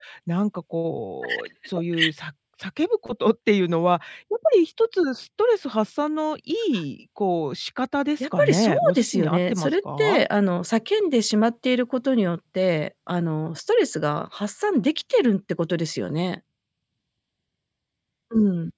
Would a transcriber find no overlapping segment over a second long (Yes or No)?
No